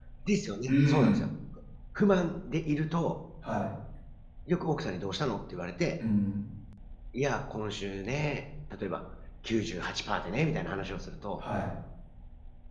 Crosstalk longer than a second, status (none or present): none